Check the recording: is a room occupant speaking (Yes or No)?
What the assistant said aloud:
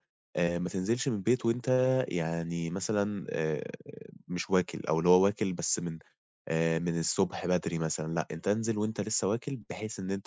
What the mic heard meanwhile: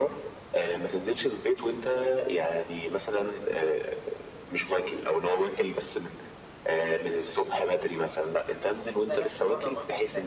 Yes